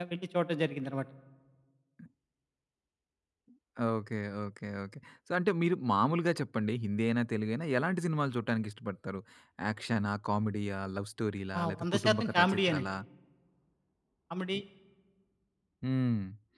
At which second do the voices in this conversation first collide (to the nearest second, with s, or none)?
12 s